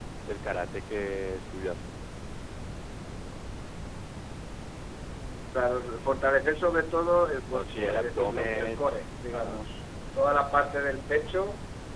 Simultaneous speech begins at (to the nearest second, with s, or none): 8 s